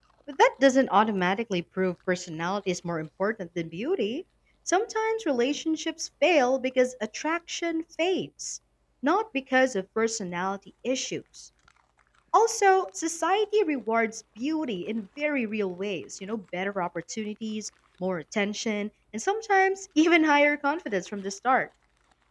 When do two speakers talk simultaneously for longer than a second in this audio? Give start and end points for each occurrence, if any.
none

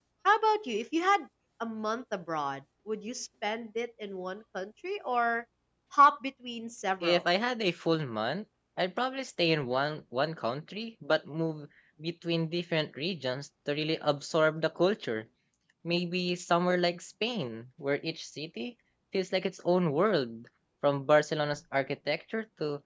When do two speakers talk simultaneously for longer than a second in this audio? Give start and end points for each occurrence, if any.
none

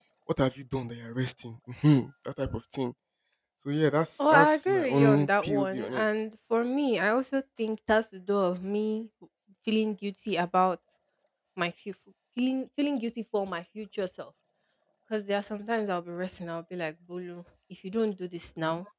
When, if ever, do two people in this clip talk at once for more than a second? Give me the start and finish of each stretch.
4.2-6.0

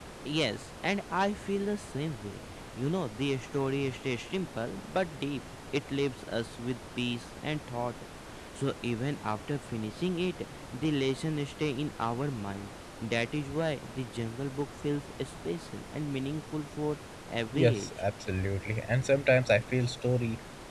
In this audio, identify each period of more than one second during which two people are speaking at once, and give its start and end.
none

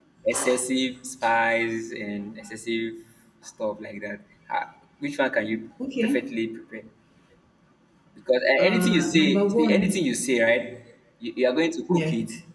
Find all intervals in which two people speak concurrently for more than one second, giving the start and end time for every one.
8.6-10.0

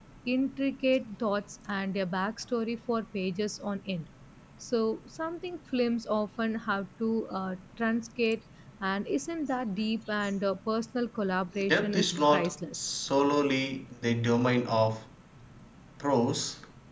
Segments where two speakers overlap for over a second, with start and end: 11.7-12.9

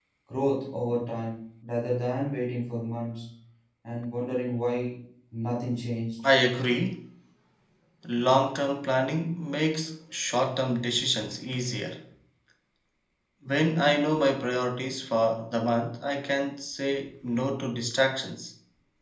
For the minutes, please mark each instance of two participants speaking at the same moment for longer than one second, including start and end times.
none

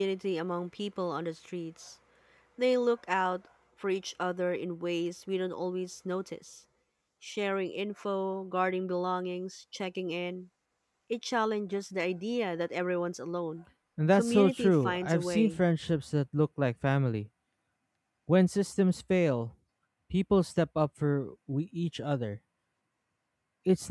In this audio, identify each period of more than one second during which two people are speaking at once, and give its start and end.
14.1-15.6

